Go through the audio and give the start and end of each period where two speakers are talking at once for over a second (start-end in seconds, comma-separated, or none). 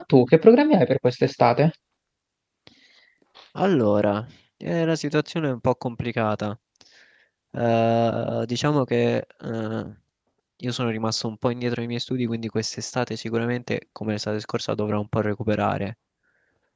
none